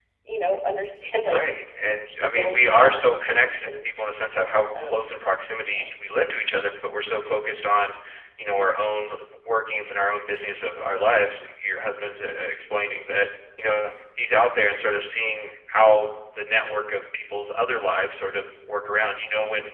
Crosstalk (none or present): present